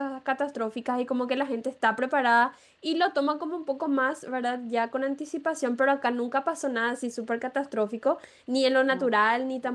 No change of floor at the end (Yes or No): Yes